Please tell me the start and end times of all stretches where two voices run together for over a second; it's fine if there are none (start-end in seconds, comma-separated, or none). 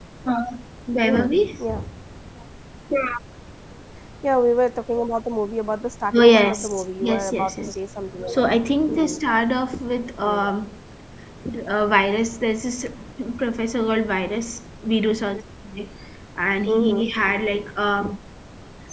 6.2-7.7